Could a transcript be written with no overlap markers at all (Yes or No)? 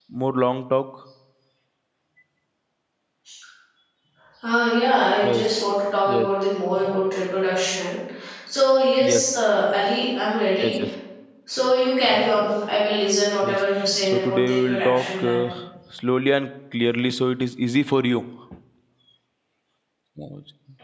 No